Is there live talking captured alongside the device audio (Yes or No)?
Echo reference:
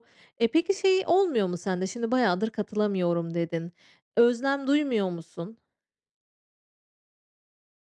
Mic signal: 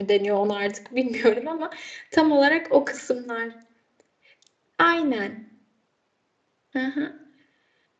Yes